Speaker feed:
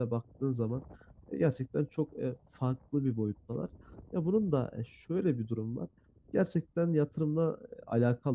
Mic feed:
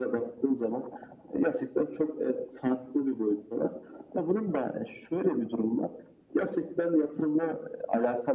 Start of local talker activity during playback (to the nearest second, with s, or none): none